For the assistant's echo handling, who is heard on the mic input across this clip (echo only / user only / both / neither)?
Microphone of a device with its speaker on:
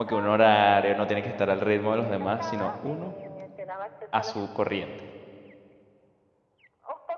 both